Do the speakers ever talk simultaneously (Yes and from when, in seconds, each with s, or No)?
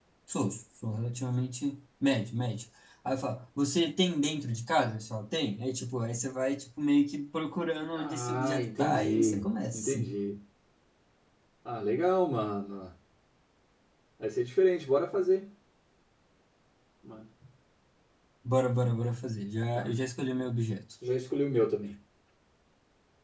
Yes, from 8.0 s